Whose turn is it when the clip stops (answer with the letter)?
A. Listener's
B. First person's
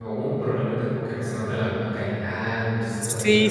A